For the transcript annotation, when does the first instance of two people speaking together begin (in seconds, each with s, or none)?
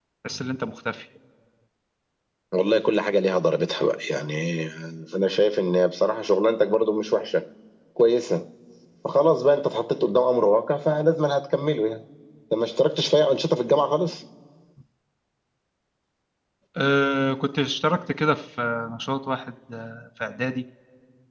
none